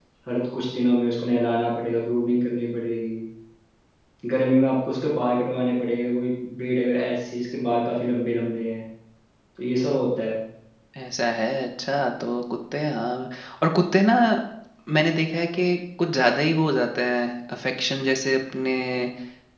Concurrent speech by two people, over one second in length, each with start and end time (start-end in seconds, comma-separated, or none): none